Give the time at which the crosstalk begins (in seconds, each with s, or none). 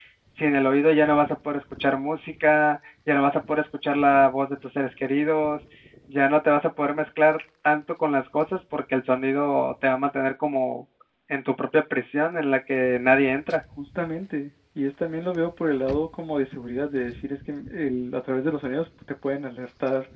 none